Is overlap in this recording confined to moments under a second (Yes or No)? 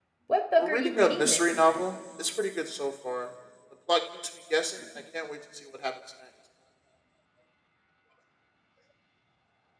No